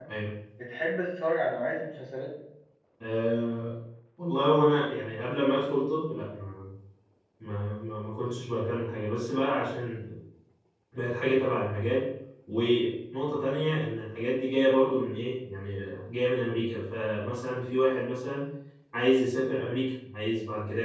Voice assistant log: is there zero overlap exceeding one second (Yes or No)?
Yes